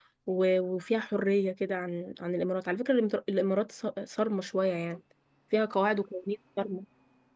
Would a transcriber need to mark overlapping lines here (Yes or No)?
No